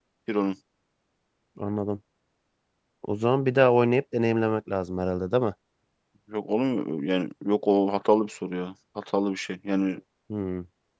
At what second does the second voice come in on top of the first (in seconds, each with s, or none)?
none